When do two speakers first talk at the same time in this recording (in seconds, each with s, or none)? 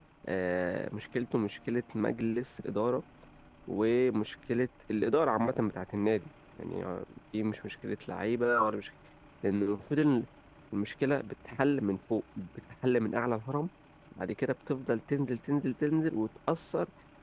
none